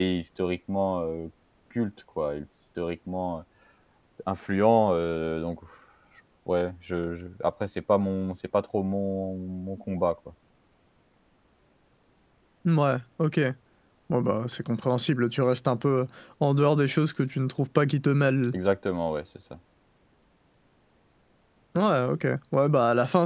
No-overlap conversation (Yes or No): Yes